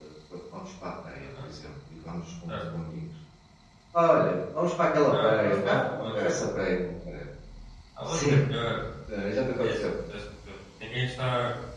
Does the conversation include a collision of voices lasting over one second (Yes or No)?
Yes